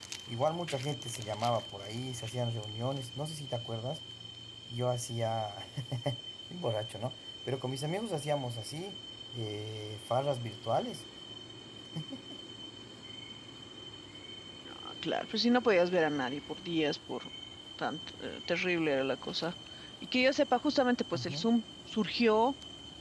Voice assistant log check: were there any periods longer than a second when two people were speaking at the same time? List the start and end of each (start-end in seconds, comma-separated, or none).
none